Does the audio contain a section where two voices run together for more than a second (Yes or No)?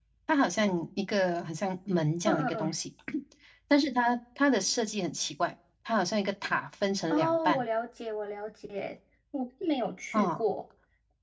No